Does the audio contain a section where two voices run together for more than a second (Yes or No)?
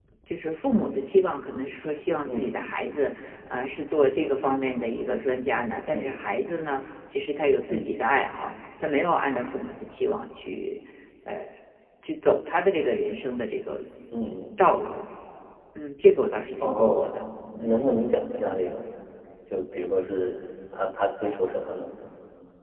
No